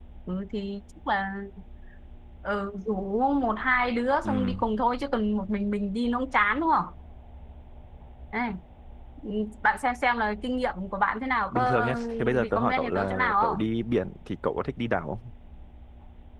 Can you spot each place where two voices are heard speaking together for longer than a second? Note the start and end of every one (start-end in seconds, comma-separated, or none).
11.5-13.7